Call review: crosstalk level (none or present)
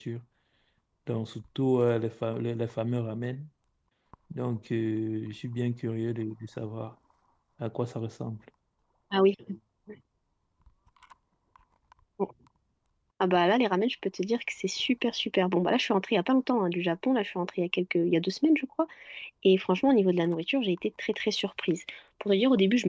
none